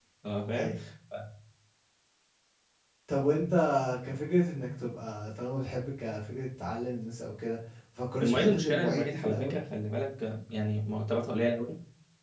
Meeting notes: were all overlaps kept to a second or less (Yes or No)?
No